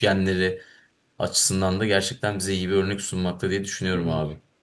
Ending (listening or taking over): taking over